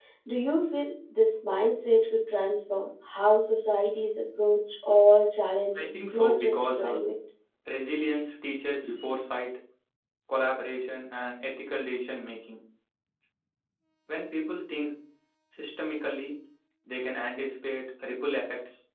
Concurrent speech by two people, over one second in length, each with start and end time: 5.8-7.0

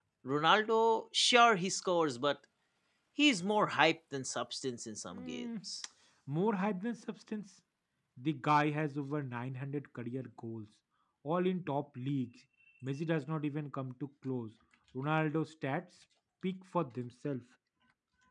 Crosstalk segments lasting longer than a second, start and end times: none

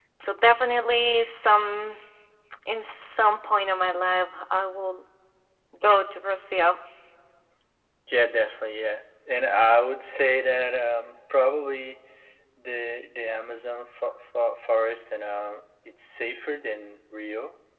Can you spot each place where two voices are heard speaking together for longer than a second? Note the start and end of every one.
none

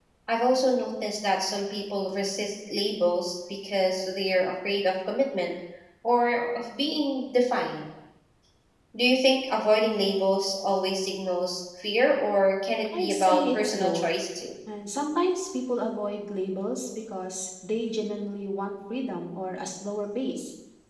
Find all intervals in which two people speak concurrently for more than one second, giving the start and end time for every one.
12.8-14.0

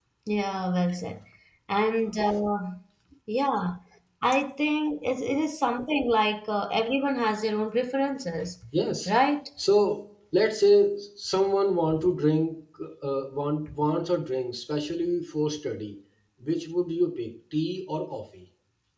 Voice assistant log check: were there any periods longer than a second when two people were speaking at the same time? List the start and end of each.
none

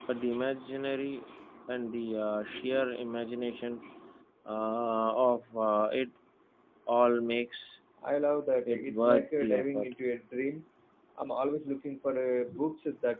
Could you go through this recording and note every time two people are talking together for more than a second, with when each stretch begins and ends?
8.7-9.9

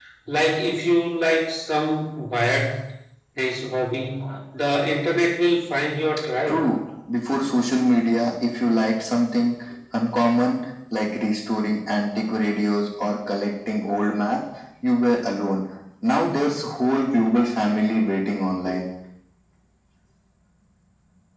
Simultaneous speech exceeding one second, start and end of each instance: none

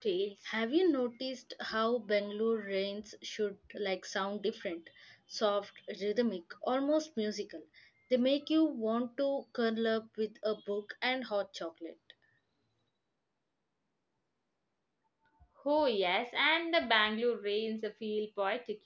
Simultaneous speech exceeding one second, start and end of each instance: none

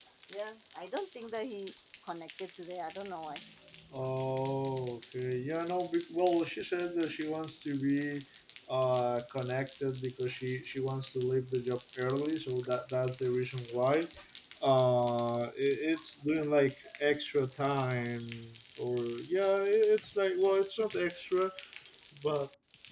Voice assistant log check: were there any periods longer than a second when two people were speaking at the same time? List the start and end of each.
none

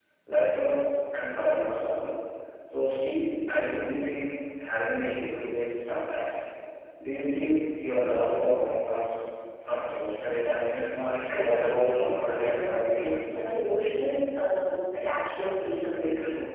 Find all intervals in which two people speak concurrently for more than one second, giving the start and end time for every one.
11.3-13.2

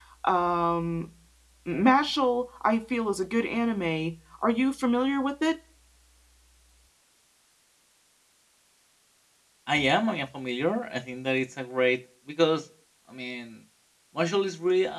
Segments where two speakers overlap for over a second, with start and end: none

